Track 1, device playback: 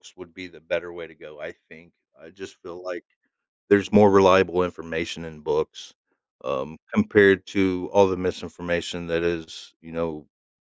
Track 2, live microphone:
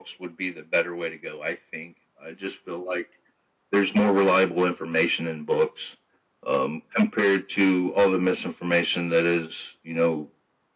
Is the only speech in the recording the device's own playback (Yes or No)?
Yes